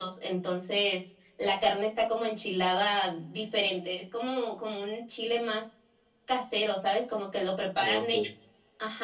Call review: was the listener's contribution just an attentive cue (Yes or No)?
Yes